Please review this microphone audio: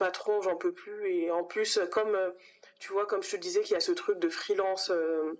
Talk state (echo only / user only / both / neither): echo only